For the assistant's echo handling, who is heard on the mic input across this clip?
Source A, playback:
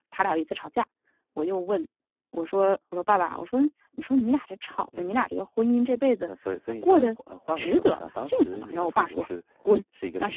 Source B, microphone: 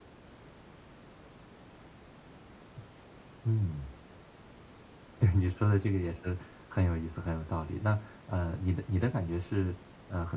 user only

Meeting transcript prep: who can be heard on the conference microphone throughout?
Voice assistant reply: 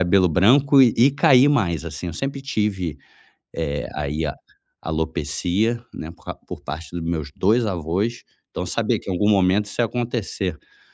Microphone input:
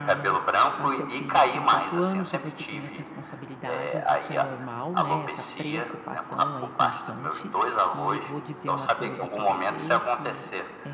both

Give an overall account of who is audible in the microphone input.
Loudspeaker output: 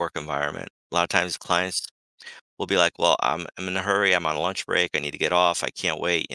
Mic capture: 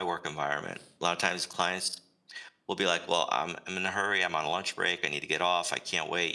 echo only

